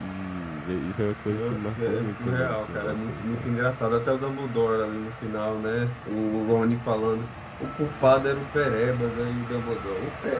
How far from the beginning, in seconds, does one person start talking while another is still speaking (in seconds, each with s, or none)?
1.3 s